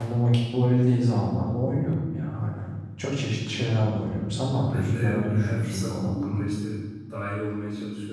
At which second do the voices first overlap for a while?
4.4 s

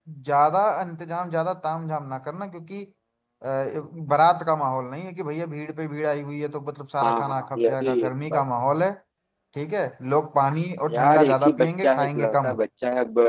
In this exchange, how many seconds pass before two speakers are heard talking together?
7.0 s

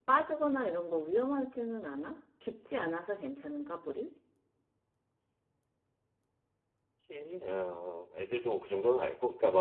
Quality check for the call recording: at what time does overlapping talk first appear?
none

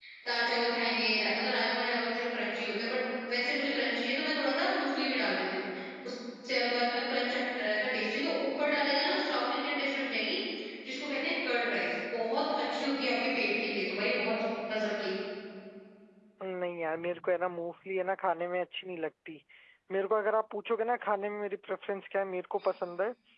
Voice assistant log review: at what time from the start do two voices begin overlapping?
none

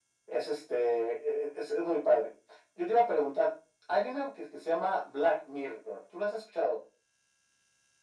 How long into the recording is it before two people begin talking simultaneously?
none

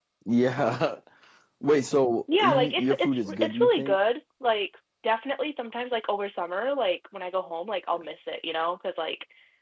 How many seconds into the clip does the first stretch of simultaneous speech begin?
2.4 s

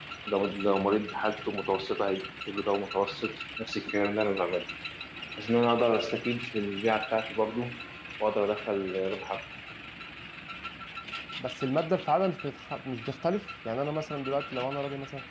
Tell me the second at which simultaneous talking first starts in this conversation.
none

